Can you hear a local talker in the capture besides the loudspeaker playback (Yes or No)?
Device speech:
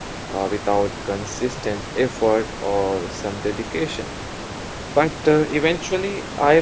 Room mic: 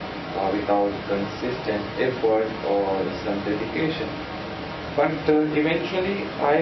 No